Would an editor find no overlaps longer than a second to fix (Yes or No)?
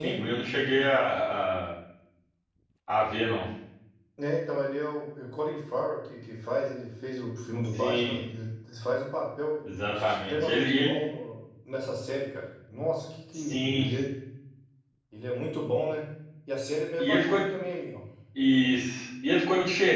No